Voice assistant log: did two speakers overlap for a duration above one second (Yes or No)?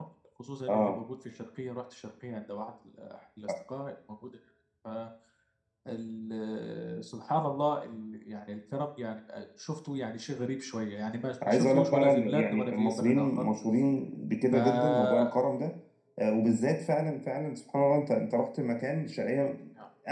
Yes